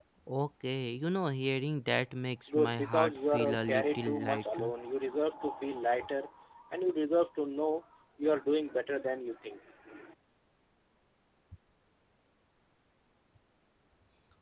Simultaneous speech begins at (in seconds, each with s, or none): 2.5 s